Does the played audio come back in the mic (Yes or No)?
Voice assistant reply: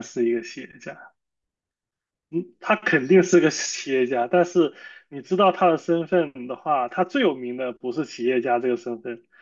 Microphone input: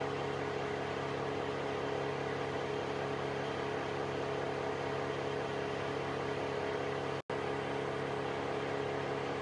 No